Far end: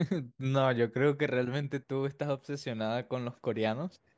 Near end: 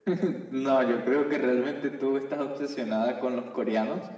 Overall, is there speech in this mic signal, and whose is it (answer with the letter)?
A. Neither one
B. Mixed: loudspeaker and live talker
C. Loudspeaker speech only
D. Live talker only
C